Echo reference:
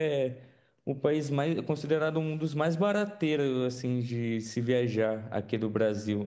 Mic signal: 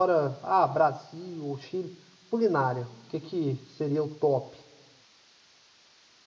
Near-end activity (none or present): present